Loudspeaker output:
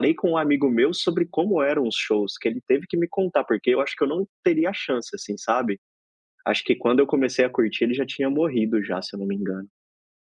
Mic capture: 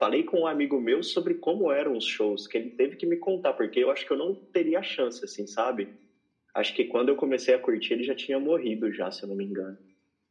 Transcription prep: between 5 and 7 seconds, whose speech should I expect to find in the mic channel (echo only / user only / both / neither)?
echo only